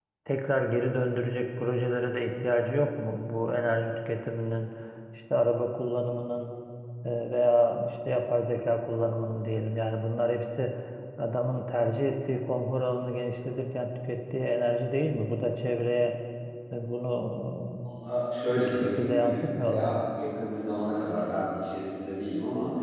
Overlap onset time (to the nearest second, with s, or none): 19 s